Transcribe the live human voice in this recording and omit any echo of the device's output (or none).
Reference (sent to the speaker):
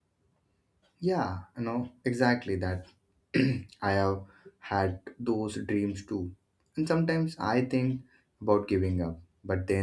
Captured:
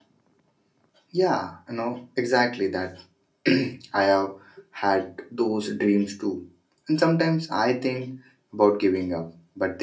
none